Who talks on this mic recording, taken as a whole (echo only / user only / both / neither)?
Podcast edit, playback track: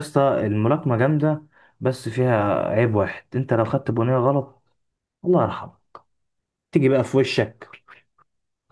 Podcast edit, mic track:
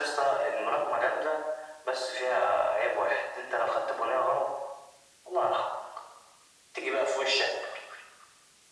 echo only